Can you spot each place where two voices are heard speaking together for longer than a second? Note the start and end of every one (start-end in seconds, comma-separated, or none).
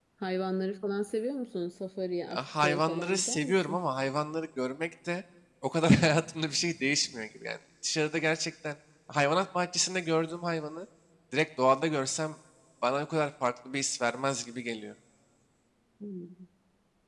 2.3-3.8